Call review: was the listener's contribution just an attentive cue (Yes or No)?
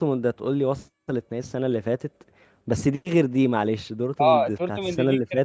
No